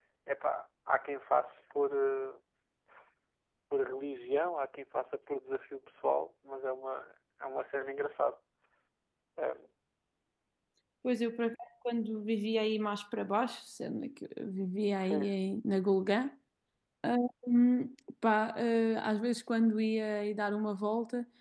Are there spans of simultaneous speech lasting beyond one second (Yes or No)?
No